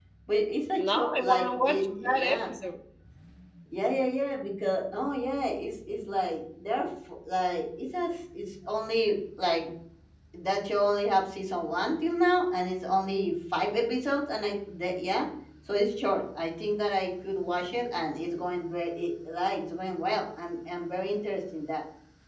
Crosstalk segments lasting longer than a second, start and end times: 0.8-2.5

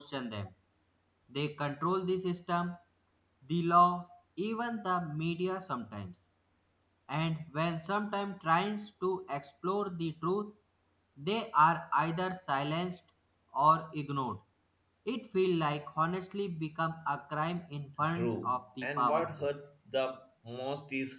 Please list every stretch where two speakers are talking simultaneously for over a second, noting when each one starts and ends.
18.2-19.5

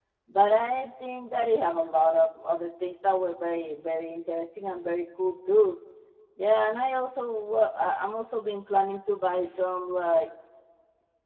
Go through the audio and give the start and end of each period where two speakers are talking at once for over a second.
none

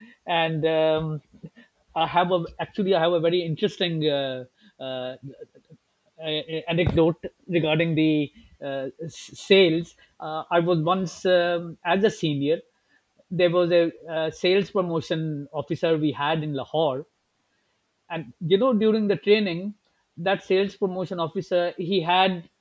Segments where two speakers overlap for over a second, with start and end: none

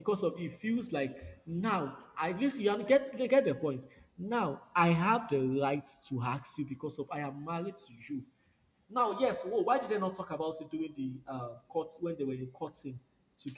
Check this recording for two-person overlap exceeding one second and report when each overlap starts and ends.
none

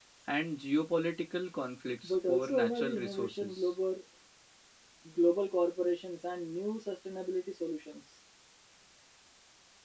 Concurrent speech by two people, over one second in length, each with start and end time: 2.0-3.7

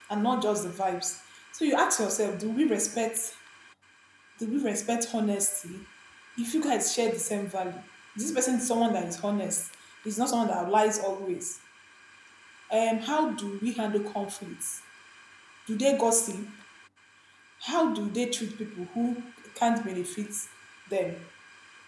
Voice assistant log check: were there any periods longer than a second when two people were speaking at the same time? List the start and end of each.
none

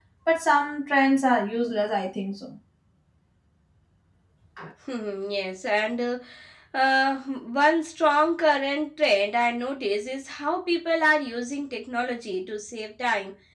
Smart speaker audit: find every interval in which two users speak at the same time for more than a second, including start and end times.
none

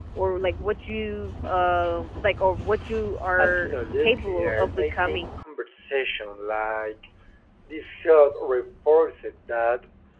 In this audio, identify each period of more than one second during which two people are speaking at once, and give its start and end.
3.4-5.3

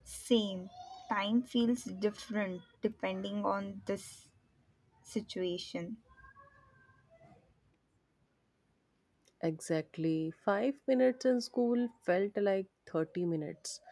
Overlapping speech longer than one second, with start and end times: none

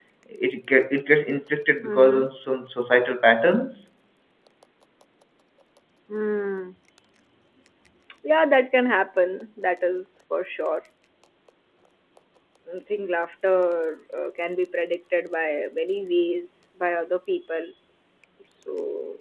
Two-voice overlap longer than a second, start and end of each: none

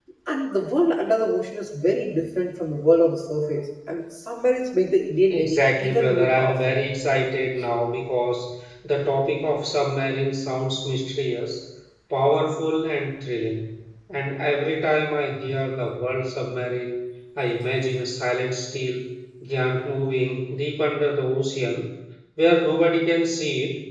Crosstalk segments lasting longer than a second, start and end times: 5.3-6.8

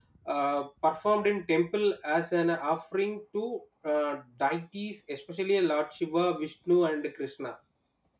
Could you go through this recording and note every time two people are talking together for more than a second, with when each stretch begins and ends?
none

